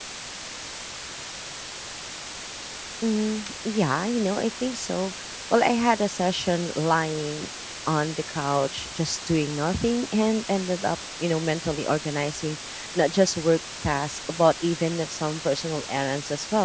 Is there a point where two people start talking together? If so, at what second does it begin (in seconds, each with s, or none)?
none